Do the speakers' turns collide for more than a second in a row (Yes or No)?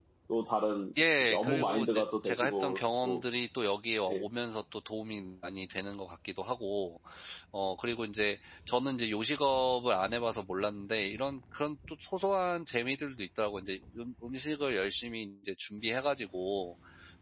Yes